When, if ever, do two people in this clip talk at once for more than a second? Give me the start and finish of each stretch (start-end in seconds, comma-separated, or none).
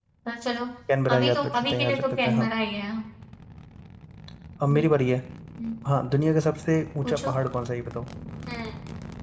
1.1-2.5